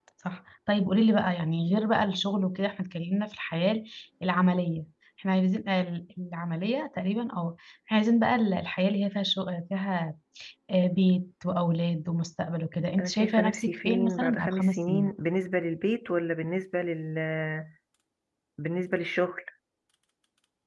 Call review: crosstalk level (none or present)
present